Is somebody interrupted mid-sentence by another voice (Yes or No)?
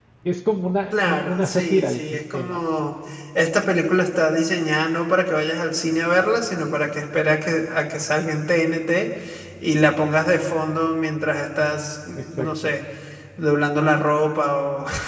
Yes